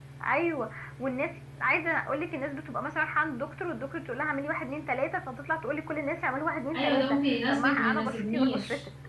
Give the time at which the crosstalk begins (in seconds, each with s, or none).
6.7 s